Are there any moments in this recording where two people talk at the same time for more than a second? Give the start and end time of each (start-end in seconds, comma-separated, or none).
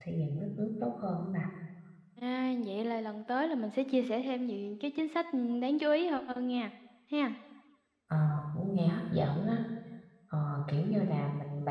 none